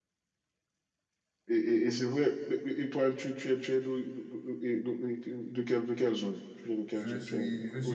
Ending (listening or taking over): taking over